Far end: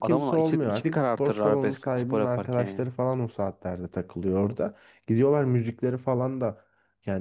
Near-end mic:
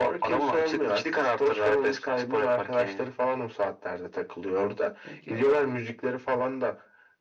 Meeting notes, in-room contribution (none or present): present